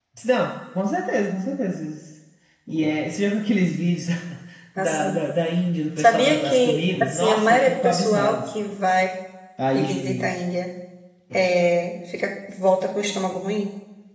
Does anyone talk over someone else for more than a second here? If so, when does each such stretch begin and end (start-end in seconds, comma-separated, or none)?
6.0-8.5